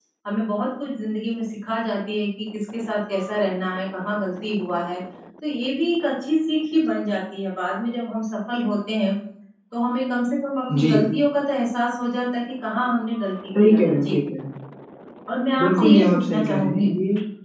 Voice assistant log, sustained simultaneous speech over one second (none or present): present